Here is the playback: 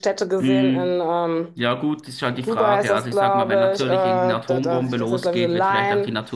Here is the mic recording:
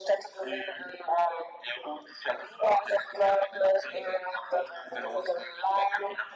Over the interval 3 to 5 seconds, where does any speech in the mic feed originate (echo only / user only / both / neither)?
echo only